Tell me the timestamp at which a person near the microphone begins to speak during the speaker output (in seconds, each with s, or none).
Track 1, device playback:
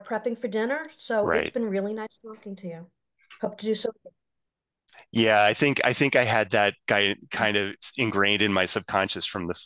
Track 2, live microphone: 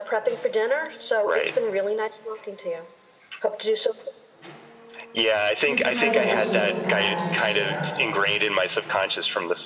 5.7 s